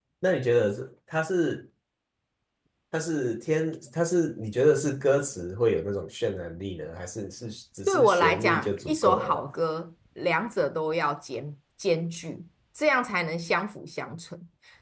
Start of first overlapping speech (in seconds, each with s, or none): 7.9 s